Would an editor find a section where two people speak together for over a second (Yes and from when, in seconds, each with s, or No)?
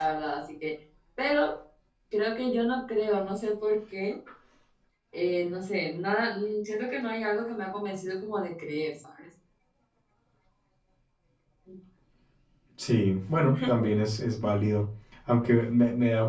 No